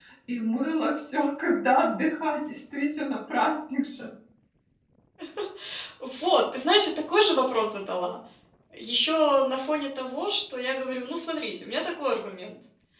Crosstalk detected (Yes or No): No